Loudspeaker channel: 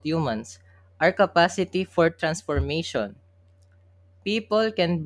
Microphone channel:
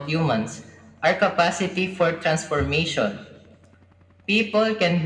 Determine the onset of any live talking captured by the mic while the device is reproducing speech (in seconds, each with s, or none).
none